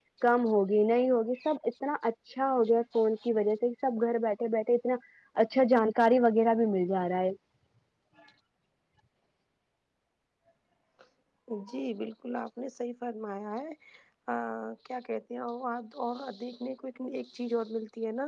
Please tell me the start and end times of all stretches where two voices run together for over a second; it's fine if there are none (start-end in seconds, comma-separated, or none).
none